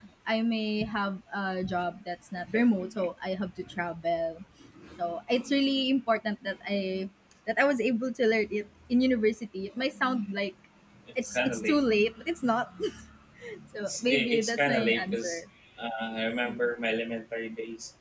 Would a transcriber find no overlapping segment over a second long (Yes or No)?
No